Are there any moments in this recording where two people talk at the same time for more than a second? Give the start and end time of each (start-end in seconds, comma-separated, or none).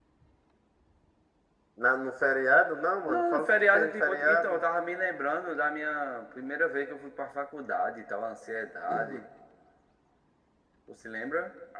3.1-4.6